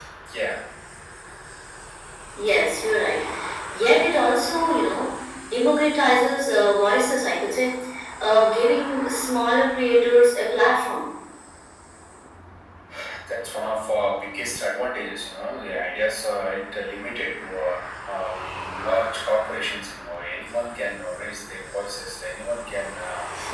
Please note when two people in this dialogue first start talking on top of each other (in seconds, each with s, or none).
none